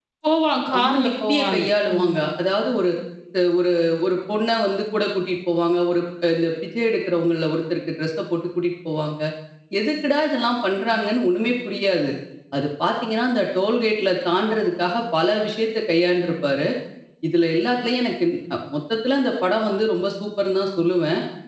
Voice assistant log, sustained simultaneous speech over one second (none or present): present